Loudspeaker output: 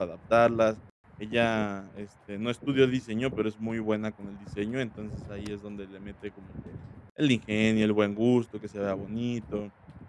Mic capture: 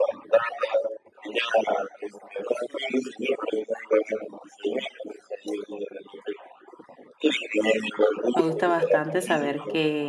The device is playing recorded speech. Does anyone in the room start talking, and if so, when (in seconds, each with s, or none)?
8.4 s